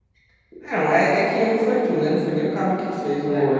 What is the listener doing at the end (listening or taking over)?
taking over